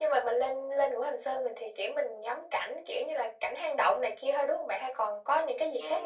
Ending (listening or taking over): taking over